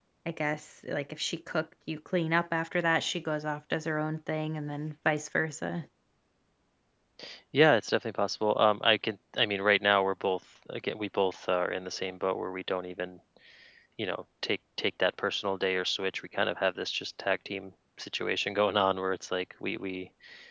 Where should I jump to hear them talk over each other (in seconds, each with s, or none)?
none